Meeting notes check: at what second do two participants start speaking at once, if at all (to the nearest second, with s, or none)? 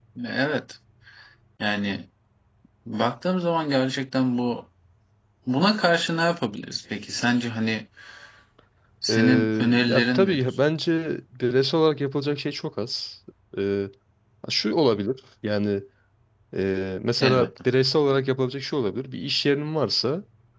9 s